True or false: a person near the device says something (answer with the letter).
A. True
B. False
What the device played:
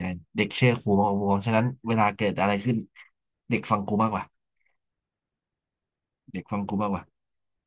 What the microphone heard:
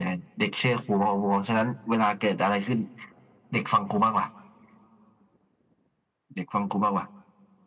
B